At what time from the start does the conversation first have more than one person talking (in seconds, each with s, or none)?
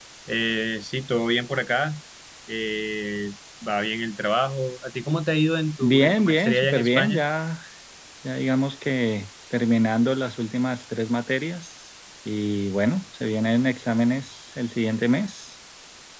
5.8 s